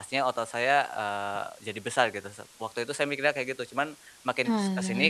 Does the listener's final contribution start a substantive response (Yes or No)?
No